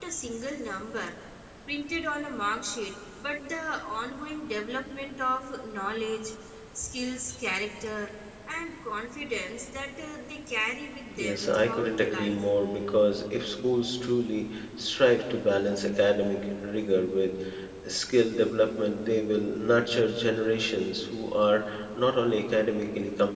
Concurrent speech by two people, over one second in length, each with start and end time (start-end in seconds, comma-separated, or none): 11.2-12.4